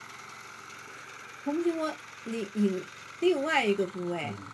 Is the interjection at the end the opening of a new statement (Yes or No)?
Yes